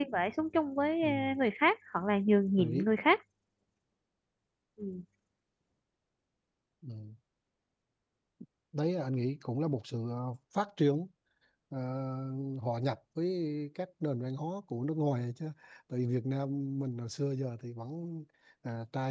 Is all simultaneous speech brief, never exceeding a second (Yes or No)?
Yes